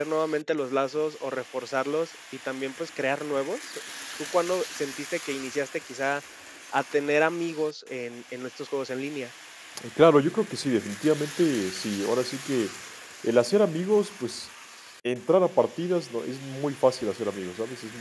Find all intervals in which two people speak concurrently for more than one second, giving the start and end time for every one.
none

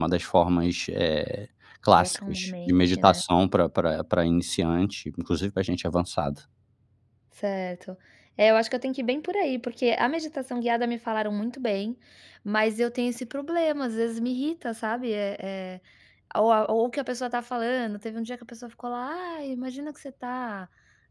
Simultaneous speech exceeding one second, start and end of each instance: 2.0-3.2

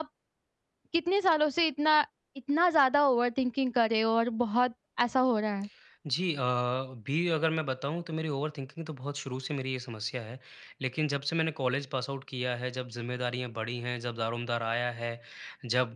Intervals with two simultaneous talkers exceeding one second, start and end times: none

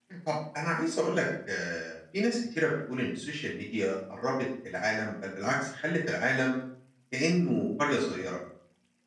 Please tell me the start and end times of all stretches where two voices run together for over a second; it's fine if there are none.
none

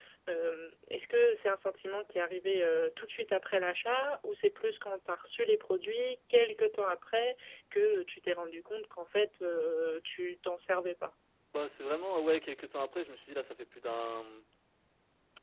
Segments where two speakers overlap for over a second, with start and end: none

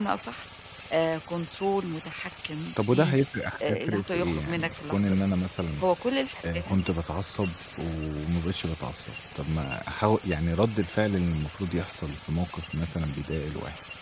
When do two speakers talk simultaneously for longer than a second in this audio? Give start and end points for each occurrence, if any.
3.7-5.3

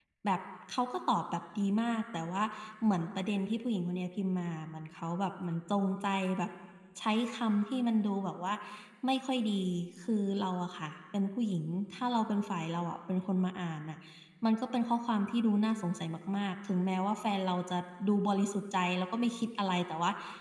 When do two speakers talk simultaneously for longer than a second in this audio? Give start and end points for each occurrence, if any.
none

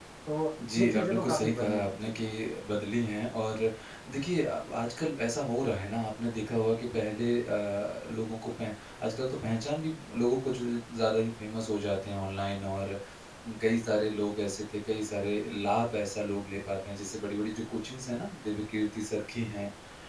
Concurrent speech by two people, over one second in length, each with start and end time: 0.8-2.1

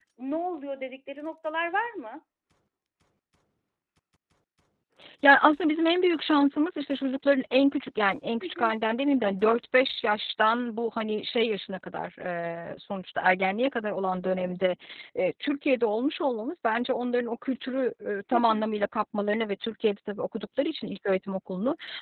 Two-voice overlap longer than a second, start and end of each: none

